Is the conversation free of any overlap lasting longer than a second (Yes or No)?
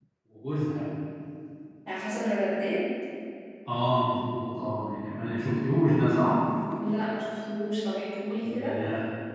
Yes